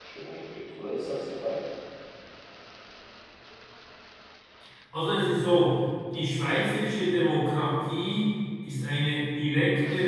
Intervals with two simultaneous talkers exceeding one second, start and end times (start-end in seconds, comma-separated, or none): none